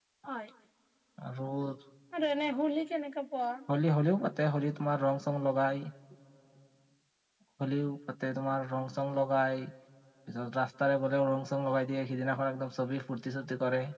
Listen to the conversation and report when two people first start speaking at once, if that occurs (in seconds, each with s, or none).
none